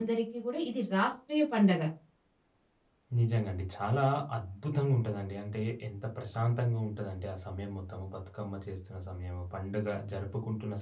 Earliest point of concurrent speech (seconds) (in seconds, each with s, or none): none